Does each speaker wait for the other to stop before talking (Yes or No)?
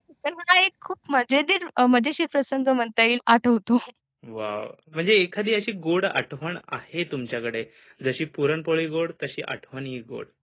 Yes